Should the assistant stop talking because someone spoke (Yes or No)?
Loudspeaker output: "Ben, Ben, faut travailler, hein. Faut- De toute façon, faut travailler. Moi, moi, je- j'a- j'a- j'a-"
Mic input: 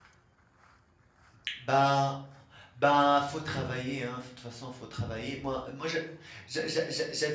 No